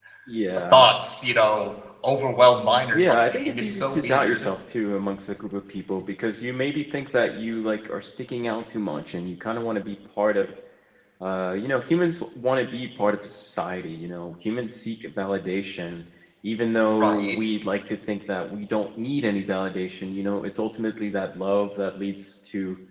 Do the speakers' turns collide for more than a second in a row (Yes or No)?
Yes